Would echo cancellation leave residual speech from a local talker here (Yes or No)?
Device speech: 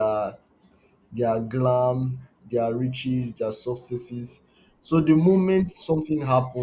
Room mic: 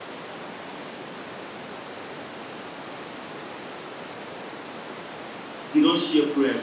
Yes